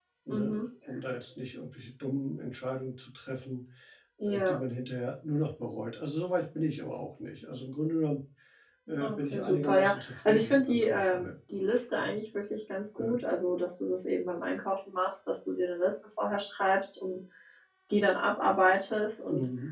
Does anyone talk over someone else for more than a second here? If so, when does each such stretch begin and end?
9.0-11.3

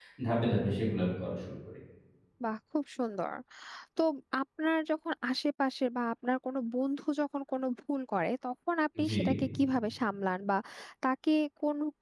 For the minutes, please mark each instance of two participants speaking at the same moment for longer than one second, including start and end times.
none

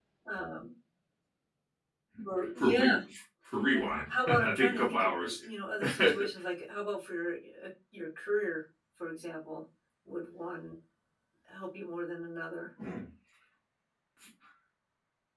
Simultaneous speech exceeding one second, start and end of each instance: 3.7-5.4

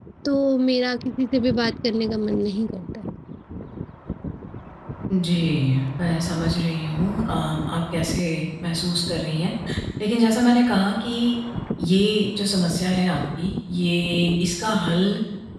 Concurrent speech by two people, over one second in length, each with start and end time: none

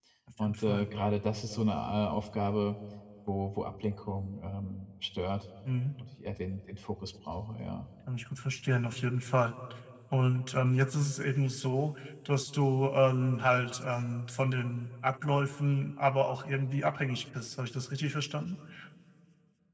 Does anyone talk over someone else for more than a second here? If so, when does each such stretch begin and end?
none

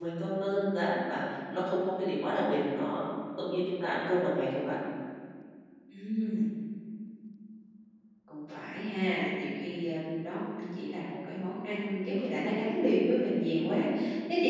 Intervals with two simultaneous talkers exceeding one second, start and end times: none

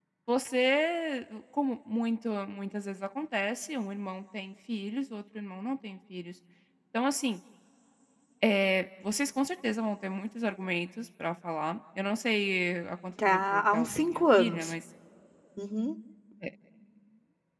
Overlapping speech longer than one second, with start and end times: 13.3-14.7

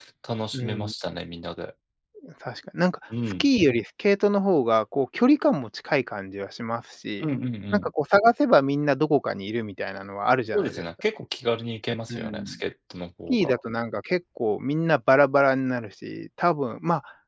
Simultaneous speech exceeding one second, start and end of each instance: none

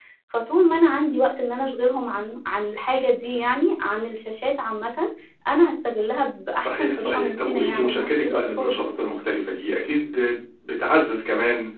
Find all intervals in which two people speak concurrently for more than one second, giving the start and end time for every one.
6.6-8.8

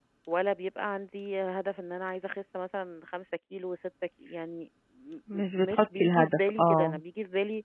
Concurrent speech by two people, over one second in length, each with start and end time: 5.3-7.0

